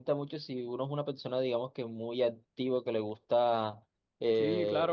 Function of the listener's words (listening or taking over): listening